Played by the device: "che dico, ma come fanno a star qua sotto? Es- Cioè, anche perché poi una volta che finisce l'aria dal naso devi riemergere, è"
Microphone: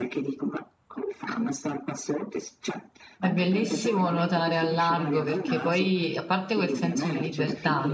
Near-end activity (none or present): present